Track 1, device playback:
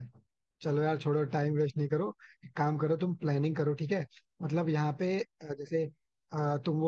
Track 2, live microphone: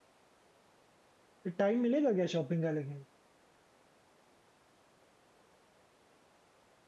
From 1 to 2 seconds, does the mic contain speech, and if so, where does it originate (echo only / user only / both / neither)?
user only